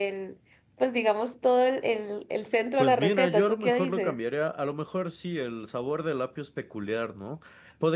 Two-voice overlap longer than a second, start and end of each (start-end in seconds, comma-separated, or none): 2.8-4.2